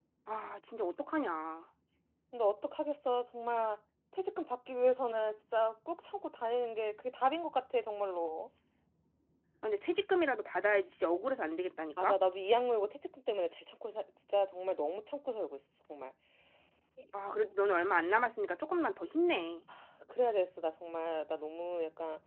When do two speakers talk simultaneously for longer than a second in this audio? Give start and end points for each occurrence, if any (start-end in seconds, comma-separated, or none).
none